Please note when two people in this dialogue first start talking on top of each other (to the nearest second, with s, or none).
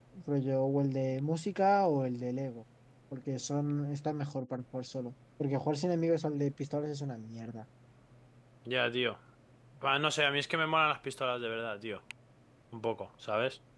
none